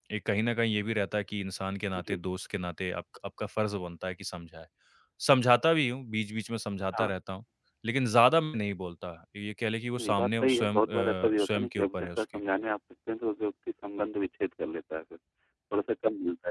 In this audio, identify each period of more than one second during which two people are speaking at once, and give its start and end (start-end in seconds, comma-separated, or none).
9.9-12.2